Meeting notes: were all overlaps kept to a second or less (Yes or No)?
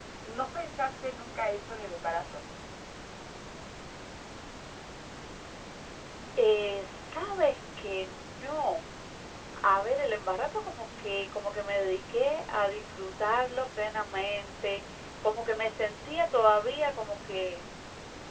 Yes